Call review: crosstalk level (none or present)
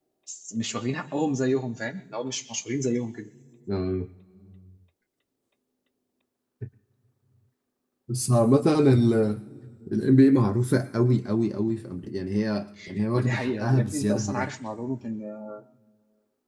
present